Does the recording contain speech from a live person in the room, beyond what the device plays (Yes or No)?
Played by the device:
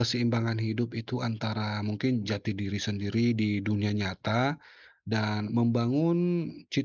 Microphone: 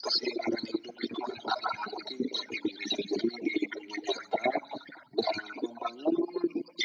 No